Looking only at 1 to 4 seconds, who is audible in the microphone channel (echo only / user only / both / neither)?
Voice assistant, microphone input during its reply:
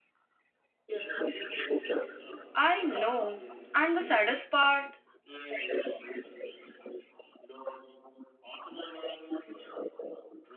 both